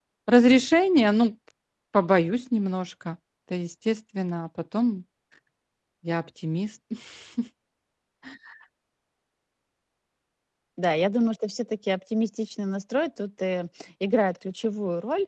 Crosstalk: none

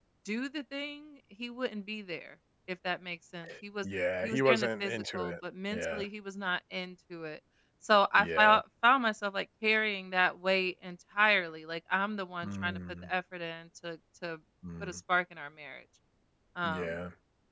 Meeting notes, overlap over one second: present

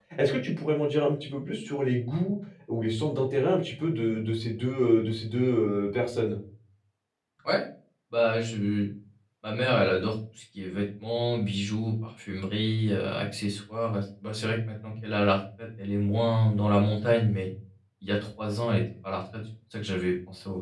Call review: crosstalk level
none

